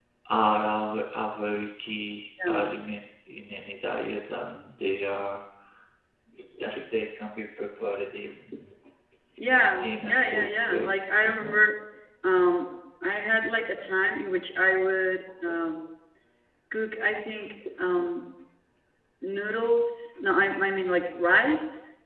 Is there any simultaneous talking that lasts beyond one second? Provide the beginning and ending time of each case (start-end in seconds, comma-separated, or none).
9.8-11.7